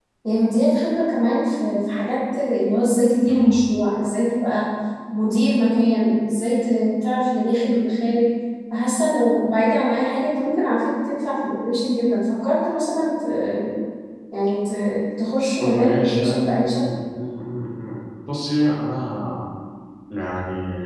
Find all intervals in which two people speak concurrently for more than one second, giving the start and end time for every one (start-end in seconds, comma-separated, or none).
15.6-16.8